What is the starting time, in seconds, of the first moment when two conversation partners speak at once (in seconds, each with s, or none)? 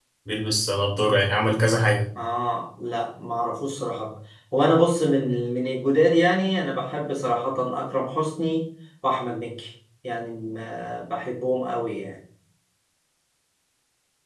none